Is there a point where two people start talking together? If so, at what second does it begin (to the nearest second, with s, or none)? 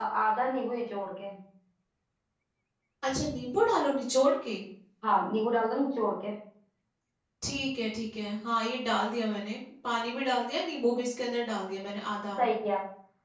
none